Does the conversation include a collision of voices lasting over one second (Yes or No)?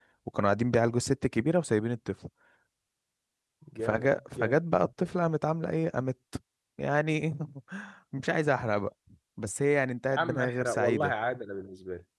Yes